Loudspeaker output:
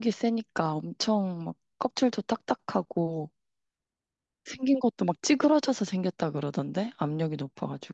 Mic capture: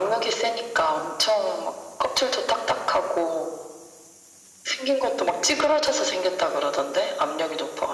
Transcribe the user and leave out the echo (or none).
none